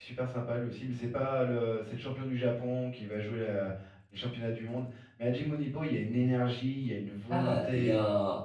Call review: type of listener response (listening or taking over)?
taking over